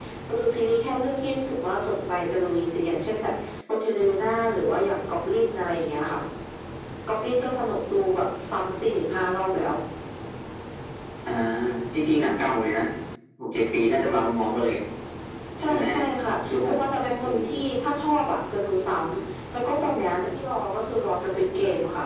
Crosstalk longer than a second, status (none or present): none